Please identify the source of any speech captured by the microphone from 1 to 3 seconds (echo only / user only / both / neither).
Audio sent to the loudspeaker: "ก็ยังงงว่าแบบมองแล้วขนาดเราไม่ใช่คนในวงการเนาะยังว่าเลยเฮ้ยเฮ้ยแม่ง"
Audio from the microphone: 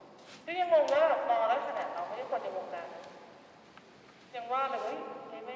echo only